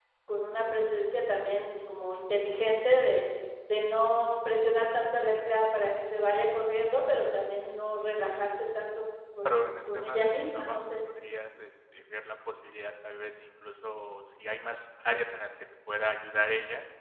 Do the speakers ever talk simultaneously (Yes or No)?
Yes